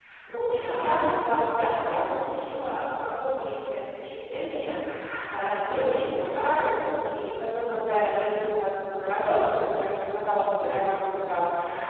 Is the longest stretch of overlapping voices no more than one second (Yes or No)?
No